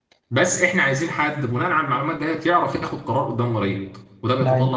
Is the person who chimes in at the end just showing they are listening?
Yes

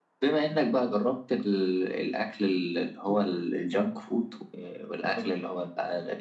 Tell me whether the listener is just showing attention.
Yes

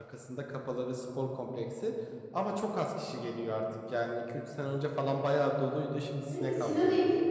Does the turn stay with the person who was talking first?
No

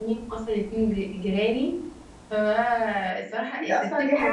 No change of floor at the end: No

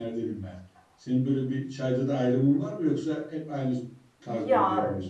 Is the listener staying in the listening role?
No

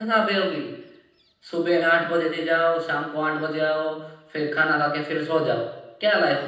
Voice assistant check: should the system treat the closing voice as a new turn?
Yes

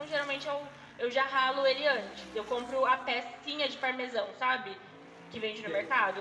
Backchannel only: Yes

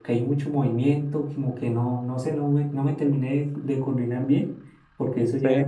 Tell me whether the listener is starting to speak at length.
No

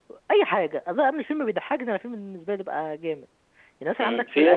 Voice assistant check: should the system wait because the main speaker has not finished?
No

